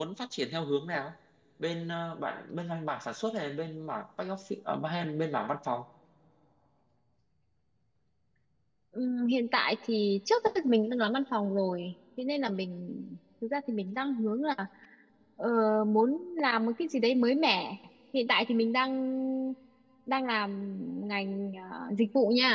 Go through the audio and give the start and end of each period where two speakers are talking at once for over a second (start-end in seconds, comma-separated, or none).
none